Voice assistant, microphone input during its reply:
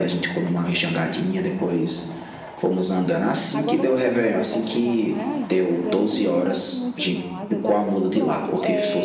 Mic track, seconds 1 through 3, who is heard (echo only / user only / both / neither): echo only